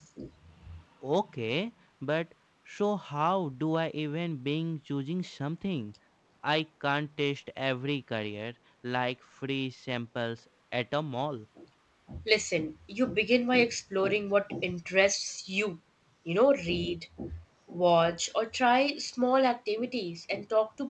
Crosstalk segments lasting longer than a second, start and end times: none

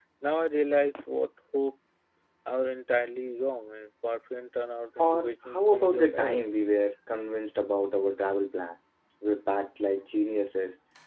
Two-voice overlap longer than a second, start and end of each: 5.0-6.4

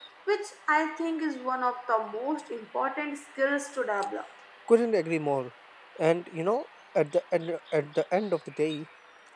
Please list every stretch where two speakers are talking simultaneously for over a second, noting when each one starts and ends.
none

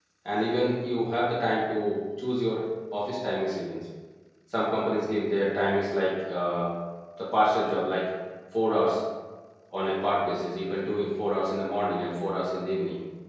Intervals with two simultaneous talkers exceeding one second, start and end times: none

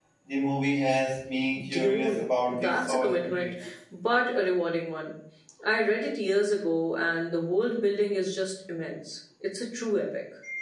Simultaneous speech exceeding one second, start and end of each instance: 1.7-3.5

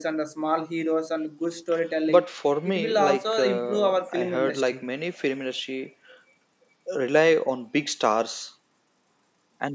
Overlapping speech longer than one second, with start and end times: 2.6-4.8

